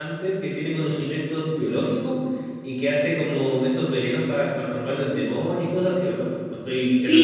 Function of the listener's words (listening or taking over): taking over